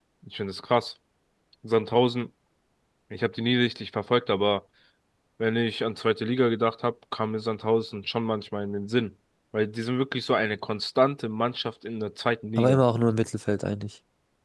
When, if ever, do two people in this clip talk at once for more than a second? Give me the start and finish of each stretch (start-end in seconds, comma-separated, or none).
none